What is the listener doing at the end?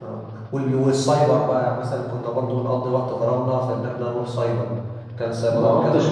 taking over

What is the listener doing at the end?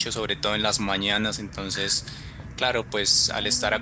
listening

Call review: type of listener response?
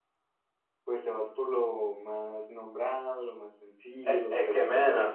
taking over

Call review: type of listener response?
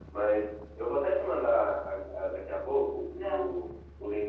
listening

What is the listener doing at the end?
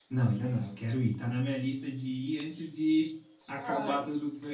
listening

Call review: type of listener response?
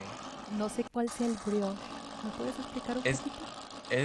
taking over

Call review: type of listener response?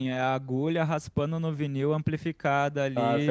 taking over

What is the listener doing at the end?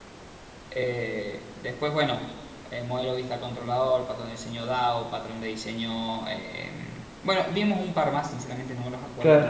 taking over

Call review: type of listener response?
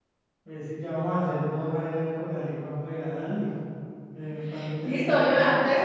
taking over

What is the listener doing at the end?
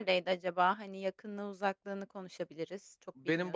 taking over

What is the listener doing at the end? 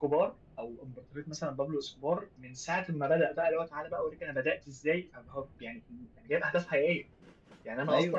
listening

